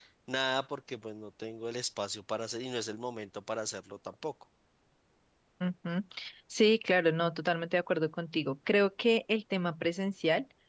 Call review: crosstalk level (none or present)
none